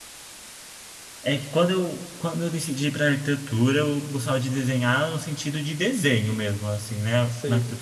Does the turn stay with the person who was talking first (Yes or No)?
Yes